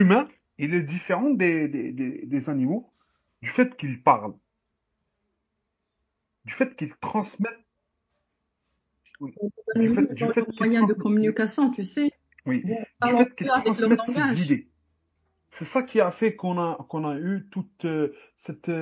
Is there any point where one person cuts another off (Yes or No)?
Yes